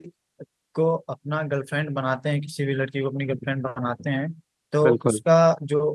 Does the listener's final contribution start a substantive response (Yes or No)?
No